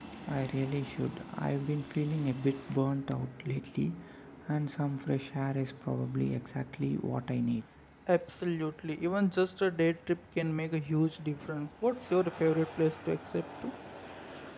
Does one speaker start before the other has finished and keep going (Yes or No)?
No